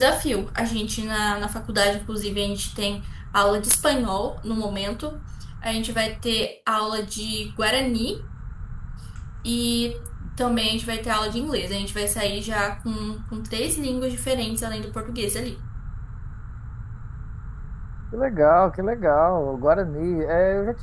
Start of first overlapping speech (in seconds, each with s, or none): none